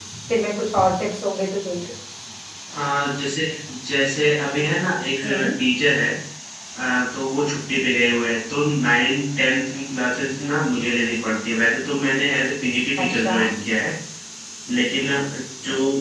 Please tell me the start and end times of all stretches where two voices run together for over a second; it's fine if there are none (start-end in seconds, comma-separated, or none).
none